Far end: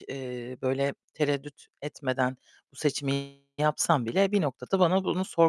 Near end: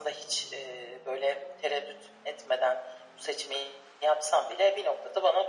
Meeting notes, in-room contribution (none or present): none